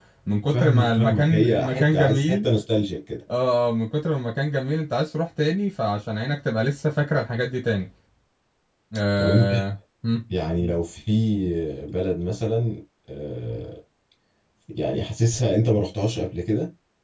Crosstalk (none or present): present